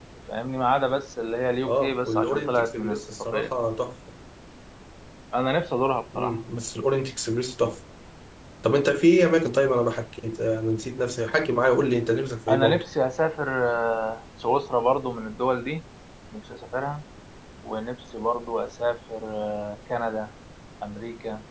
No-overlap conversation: No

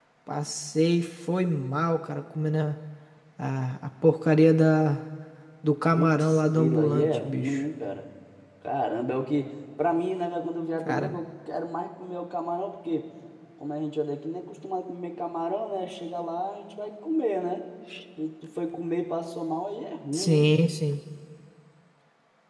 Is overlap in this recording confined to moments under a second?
No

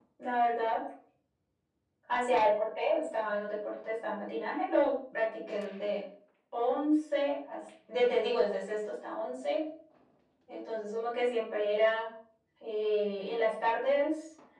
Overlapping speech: No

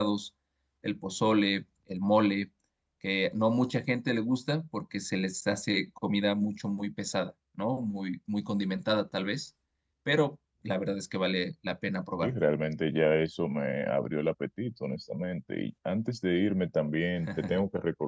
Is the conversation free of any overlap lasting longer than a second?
Yes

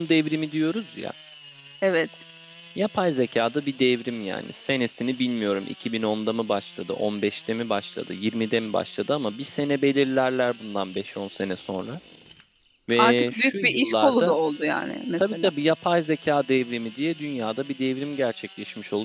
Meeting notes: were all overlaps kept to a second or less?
No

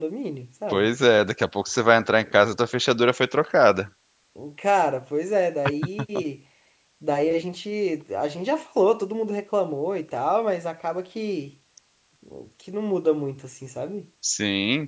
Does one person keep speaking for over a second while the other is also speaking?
No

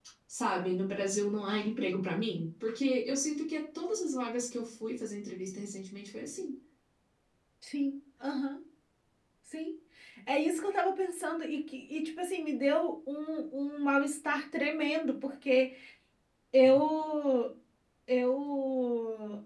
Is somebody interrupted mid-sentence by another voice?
No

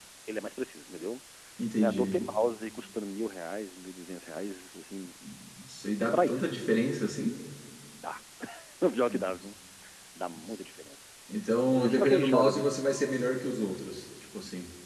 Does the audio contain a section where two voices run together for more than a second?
Yes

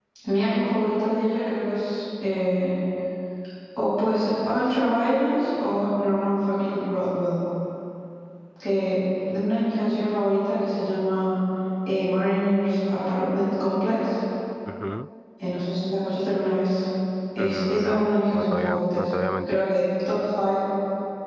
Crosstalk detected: Yes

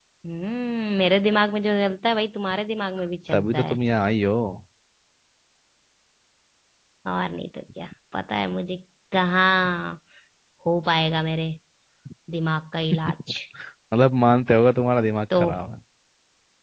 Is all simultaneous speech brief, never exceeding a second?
Yes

